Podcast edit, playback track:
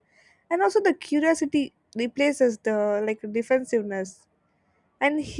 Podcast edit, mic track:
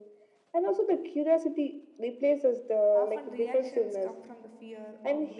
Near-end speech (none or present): present